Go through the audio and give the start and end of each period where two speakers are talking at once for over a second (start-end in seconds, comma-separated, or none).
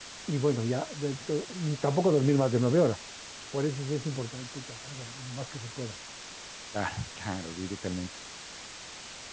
none